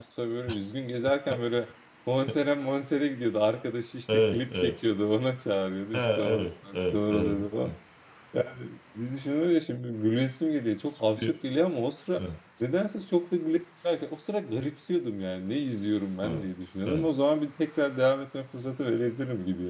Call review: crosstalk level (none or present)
present